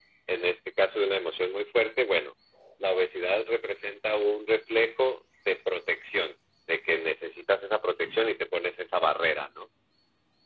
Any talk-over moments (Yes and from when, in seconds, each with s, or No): No